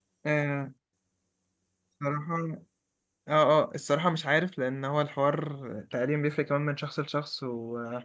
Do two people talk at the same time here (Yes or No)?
No